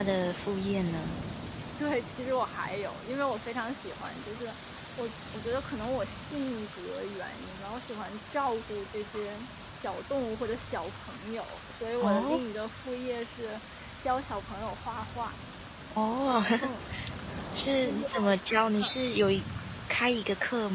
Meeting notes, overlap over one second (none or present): none